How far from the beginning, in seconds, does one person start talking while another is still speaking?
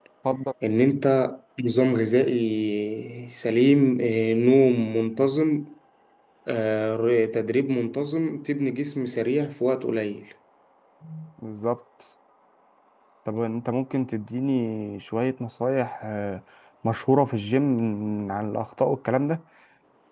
none

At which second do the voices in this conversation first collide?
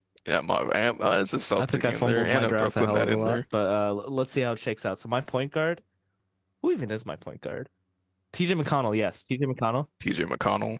1.6 s

